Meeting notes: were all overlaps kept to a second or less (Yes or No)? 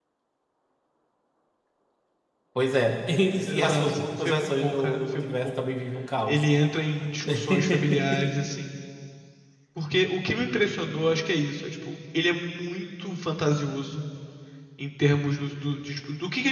No